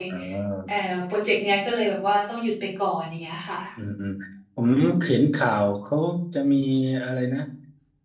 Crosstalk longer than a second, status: none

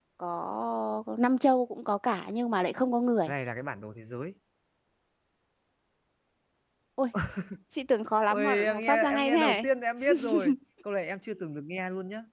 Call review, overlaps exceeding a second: present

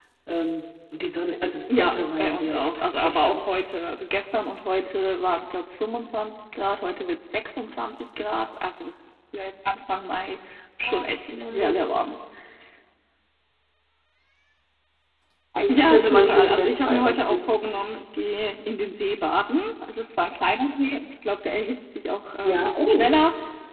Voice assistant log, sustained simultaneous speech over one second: present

